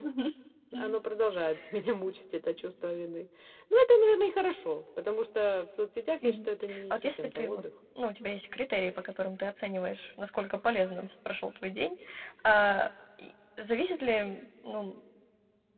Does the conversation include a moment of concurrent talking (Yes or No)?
Yes